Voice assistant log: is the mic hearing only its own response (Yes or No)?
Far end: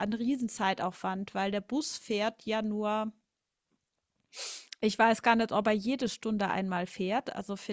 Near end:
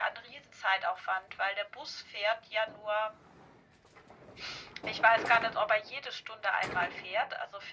Yes